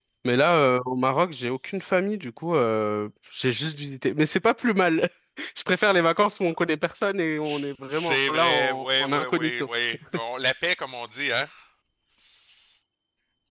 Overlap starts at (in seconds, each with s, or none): 7.4 s